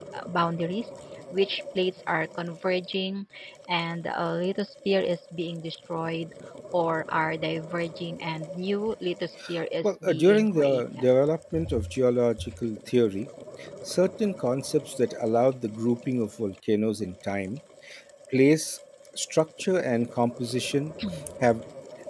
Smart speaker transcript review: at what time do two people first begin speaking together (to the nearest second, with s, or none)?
10 s